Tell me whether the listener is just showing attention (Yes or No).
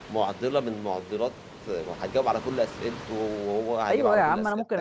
No